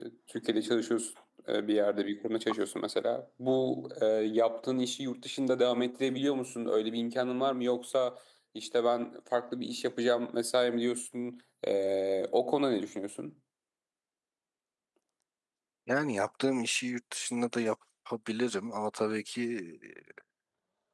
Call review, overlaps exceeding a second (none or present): none